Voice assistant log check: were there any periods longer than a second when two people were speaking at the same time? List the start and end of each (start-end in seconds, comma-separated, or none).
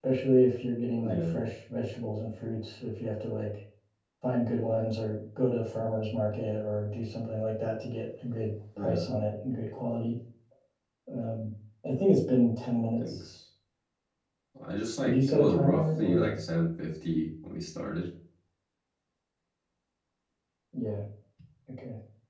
15.0-16.4